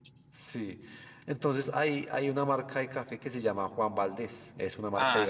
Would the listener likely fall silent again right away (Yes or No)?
No